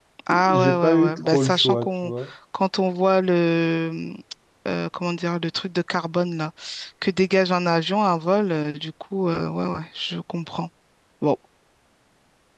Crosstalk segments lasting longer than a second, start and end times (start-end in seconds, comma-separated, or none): 0.5-2.1